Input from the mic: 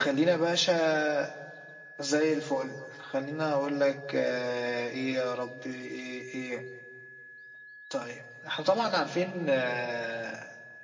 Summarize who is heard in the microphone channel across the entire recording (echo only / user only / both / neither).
echo only